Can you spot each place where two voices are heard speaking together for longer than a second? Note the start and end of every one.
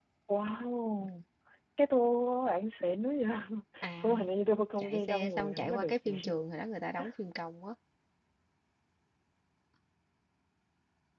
4.8-6.3

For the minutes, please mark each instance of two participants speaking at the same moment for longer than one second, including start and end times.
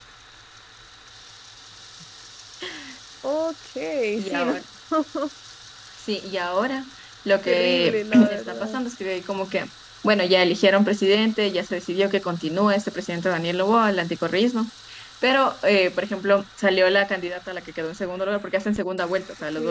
7.5-8.8

